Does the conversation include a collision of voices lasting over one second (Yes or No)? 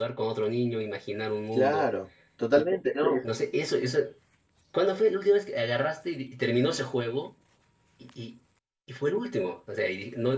No